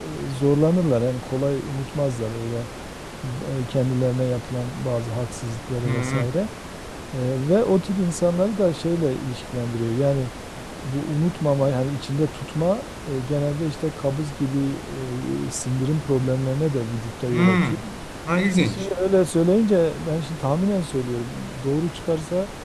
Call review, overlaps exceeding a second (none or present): none